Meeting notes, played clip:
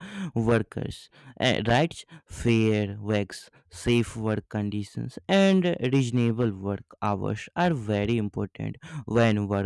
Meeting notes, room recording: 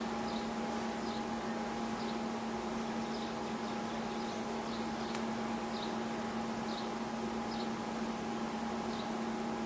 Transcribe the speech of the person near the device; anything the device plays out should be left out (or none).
none